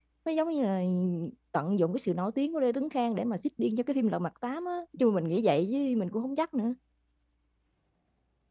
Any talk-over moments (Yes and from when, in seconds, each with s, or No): No